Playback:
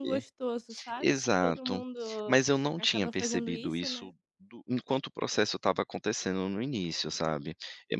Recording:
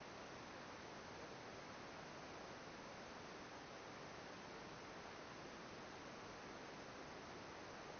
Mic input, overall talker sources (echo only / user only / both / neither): neither